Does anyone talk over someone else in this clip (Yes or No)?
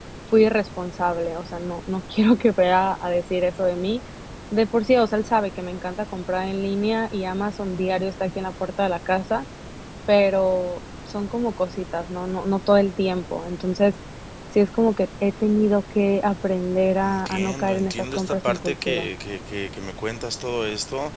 Yes